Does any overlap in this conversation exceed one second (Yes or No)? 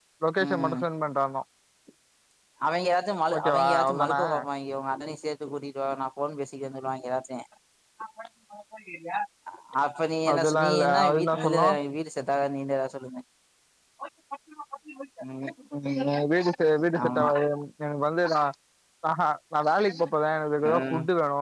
Yes